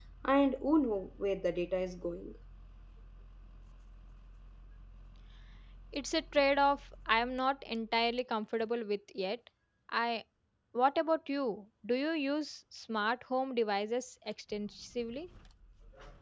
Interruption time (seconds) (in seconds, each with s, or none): none